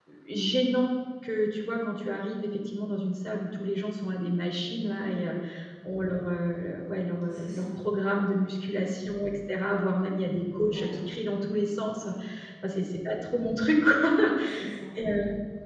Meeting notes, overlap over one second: none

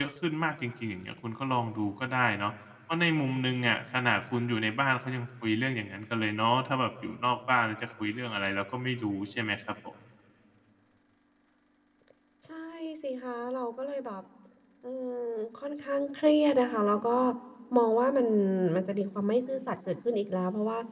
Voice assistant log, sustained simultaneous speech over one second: none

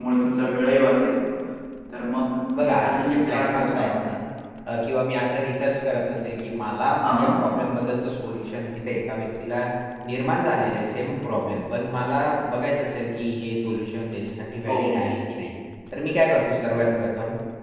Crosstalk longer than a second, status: present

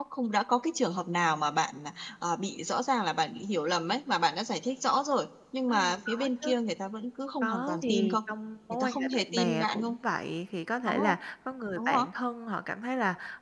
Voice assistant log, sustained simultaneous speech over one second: present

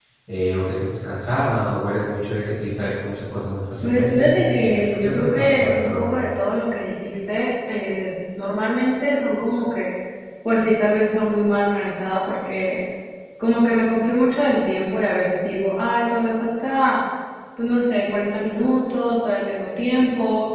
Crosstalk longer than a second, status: present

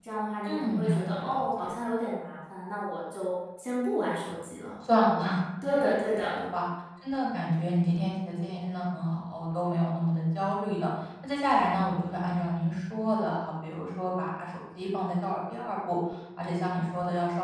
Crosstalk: present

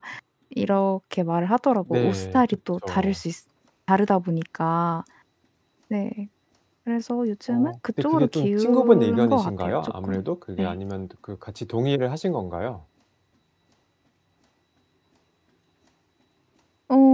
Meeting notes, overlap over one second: present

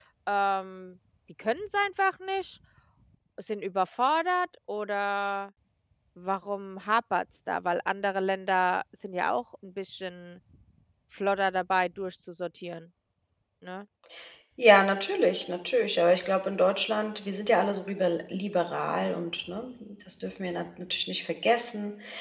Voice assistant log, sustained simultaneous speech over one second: none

